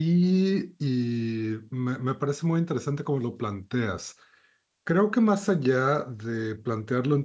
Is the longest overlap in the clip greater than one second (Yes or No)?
No